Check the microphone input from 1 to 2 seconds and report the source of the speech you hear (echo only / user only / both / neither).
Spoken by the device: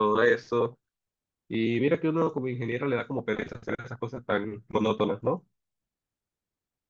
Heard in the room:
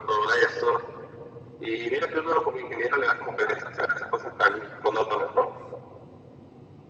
echo only